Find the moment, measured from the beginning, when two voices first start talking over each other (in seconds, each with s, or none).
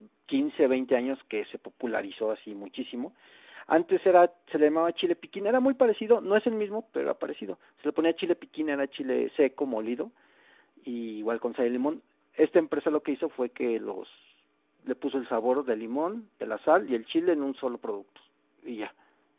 none